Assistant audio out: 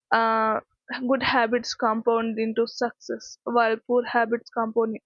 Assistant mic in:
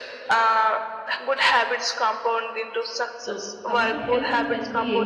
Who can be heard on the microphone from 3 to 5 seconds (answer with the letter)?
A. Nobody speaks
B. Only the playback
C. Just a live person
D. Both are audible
D